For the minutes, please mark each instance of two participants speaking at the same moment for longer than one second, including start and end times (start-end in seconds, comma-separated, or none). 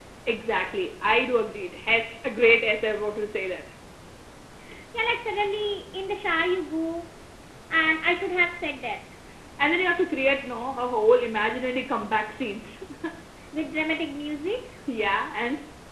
none